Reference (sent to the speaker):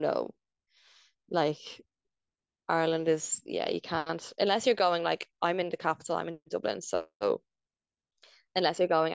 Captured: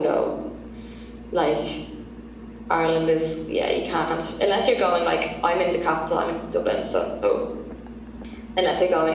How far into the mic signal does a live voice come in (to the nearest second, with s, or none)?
none